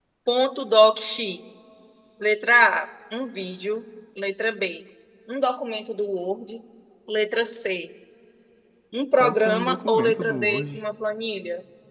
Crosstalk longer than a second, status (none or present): present